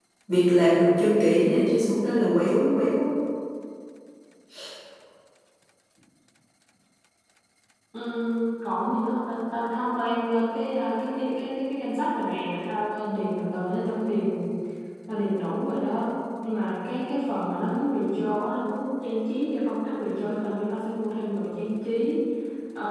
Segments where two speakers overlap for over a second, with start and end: none

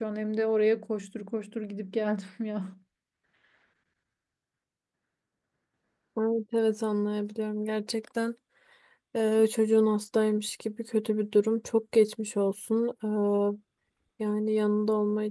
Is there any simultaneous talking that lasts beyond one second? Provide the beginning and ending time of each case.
none

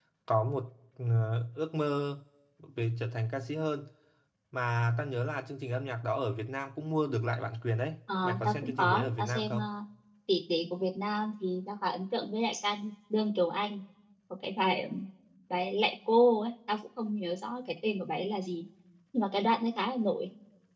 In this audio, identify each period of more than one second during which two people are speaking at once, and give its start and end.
8.2-9.6

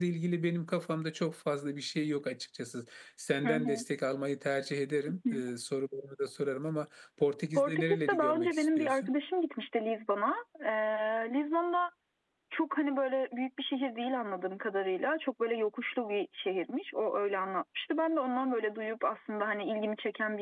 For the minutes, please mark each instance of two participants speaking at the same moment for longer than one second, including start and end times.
7.6-9.1

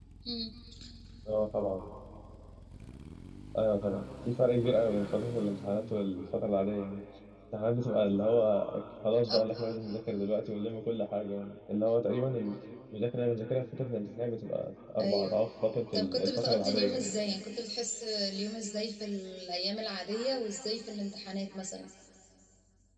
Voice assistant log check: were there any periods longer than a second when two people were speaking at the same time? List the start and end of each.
15.9-17.2

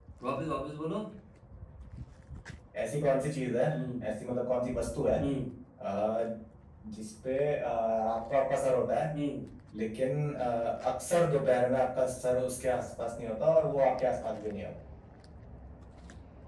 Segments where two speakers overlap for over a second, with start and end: none

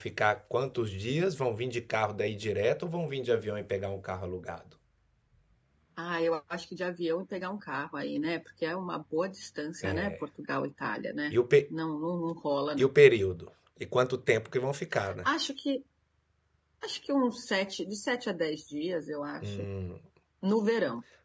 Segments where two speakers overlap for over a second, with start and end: none

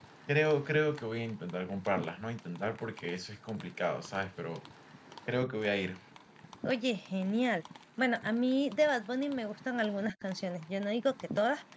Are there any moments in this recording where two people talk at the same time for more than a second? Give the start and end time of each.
none

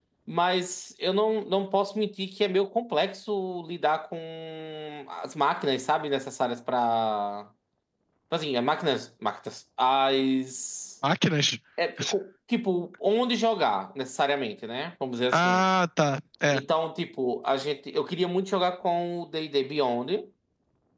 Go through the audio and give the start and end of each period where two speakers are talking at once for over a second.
none

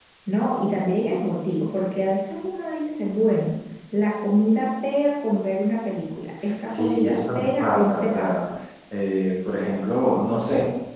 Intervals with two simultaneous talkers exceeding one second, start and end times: 6.7-8.4

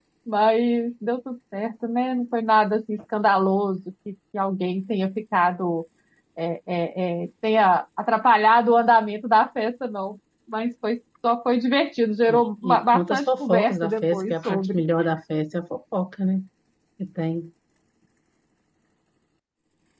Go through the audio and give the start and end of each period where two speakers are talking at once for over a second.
12.3-14.8

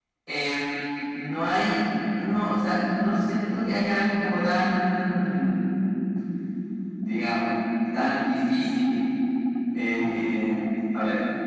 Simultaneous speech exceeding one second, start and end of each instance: none

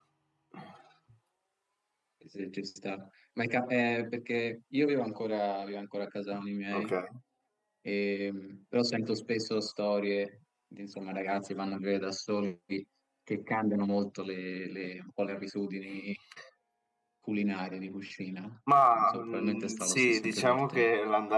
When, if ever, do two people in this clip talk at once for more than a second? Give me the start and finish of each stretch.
19.0-20.9

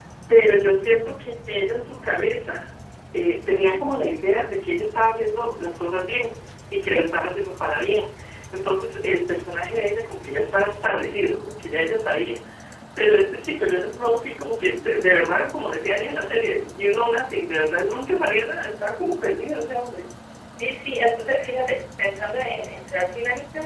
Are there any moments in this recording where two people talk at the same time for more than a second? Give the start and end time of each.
none

